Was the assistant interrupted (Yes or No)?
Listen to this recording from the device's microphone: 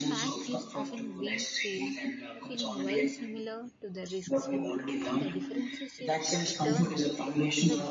Yes